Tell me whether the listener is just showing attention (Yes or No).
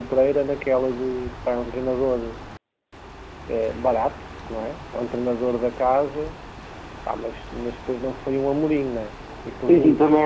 No